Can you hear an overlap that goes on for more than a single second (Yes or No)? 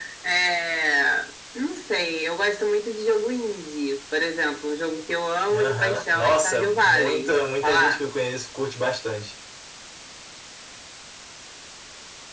Yes